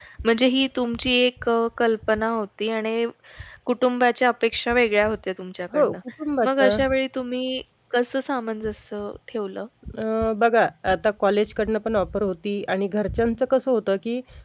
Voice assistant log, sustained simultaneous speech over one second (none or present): none